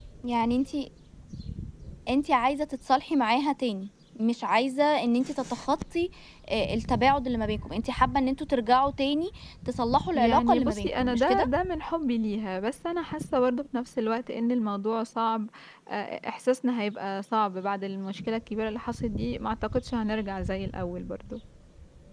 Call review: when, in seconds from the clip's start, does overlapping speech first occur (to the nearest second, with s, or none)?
10 s